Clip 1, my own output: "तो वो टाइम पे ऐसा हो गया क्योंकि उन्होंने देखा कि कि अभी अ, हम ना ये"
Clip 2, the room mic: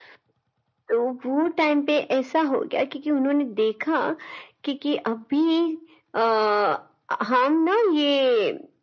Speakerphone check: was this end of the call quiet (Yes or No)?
Yes